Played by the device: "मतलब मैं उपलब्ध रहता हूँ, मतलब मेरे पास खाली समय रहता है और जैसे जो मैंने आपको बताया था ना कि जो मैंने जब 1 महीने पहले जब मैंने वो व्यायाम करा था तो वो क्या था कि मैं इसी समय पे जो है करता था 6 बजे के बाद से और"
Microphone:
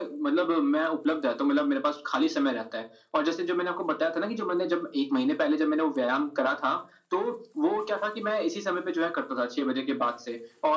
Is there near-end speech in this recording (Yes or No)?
No